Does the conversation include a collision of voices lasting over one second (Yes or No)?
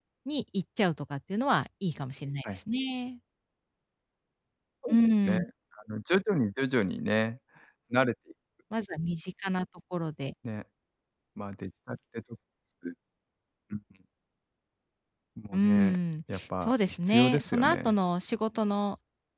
Yes